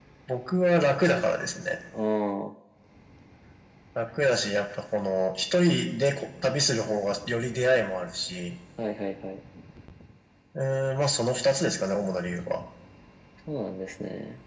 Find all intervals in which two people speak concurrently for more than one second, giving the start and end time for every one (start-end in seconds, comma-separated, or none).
none